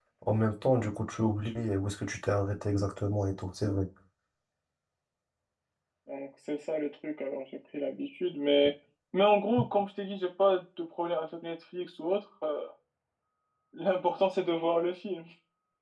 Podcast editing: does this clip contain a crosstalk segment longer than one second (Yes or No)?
No